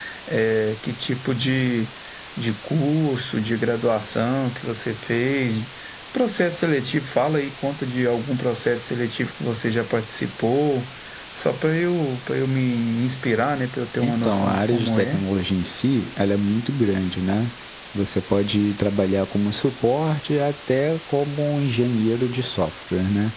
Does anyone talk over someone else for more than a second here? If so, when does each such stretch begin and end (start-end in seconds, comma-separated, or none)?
14.0-15.2